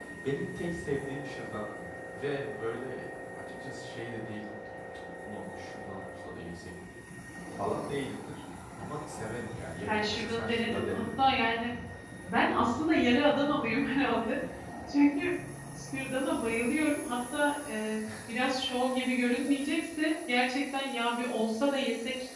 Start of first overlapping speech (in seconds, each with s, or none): 9.9 s